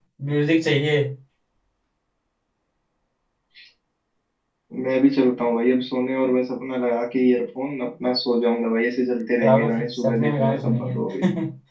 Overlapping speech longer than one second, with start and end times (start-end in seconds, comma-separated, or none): 9.4-10.9